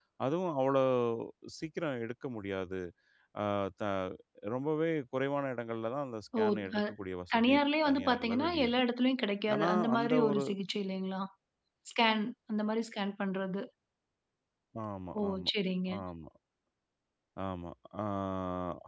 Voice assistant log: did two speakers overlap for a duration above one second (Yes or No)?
Yes